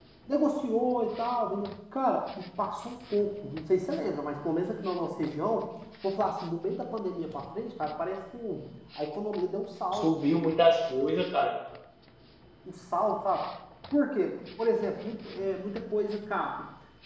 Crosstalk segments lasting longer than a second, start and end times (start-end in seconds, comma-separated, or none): none